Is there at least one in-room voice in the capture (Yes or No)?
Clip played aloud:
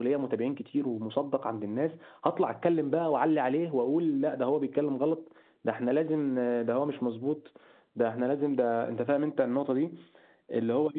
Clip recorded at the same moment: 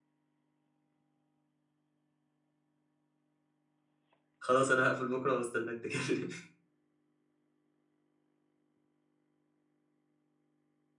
Yes